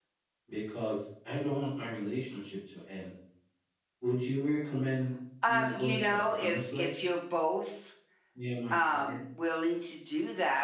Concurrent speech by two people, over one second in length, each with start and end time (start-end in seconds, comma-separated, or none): 5.4-6.9